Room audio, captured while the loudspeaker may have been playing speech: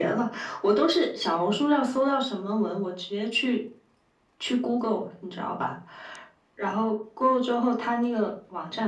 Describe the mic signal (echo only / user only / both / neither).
echo only